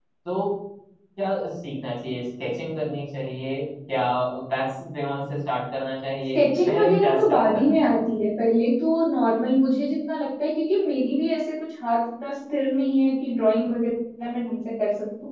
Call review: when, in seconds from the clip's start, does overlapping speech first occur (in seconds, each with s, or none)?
6.3 s